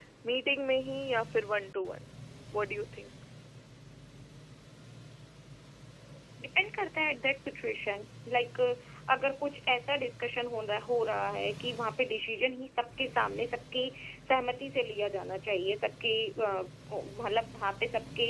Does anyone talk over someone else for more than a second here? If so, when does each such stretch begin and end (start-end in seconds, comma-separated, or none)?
none